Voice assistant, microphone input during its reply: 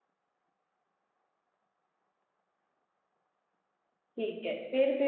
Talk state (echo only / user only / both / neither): user only